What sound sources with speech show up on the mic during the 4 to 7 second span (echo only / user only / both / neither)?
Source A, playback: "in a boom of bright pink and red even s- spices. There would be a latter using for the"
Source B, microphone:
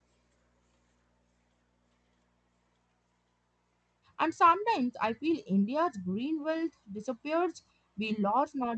user only